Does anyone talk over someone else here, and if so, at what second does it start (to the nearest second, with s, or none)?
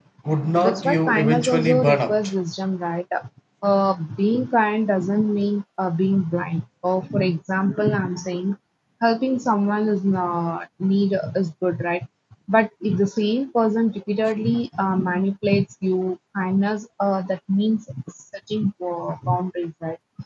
1 s